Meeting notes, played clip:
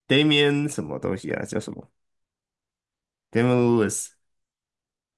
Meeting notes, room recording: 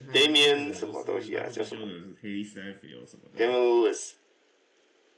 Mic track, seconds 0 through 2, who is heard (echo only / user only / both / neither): both